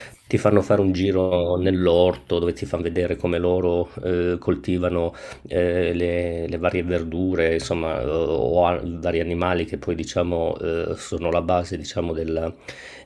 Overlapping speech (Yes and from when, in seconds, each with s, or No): No